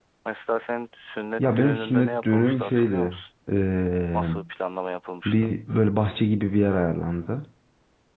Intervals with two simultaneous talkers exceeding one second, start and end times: 1.4-3.2

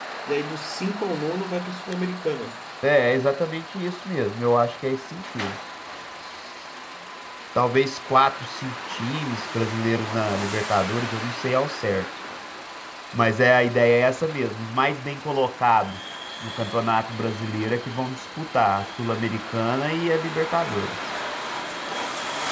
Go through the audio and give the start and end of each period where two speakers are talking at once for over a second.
none

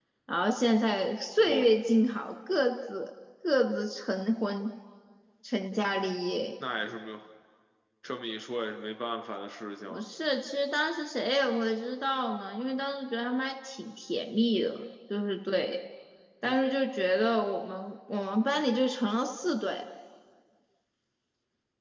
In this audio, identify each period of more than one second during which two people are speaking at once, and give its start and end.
none

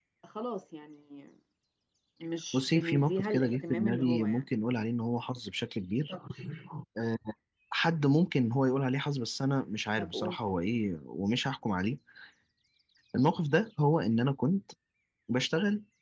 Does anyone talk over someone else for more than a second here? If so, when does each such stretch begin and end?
2.5-4.4

